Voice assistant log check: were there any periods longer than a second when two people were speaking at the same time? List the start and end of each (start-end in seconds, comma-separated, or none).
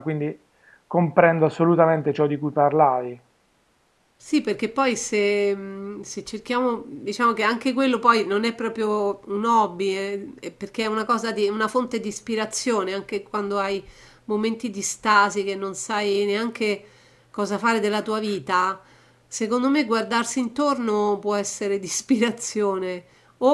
none